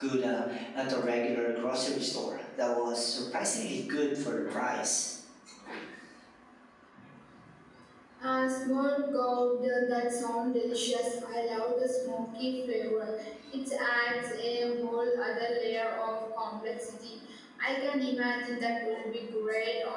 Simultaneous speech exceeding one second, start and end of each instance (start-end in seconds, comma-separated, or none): none